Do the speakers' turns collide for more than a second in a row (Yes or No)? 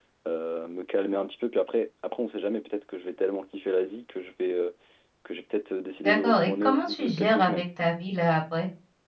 Yes